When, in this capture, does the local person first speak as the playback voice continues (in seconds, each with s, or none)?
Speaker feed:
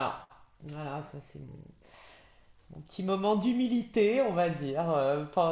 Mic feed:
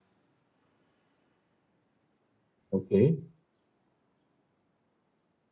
2.7 s